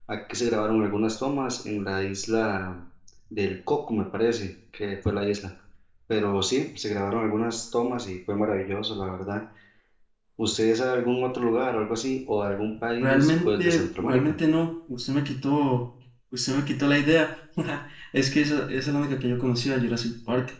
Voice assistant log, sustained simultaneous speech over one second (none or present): present